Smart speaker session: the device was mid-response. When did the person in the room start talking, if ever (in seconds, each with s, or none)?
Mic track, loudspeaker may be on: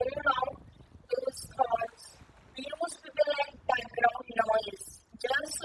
none